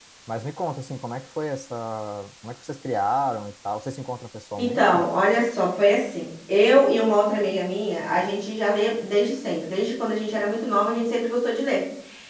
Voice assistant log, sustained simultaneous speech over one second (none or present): none